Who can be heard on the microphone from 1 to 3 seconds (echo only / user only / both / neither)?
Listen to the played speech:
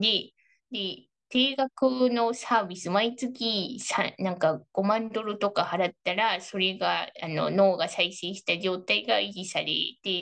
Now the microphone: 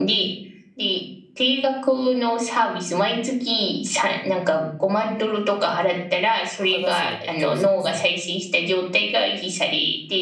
echo only